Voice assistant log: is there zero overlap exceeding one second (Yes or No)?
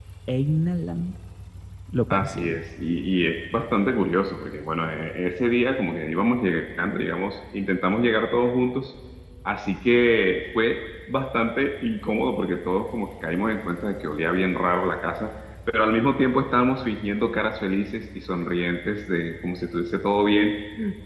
Yes